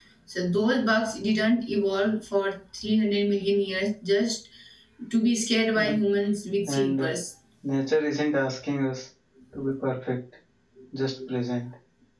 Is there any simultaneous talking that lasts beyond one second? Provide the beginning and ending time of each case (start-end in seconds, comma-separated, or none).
none